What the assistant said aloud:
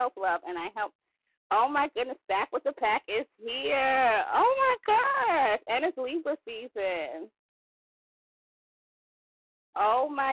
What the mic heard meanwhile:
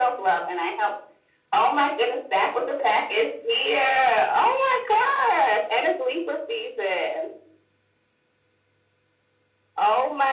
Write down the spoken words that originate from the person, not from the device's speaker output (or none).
none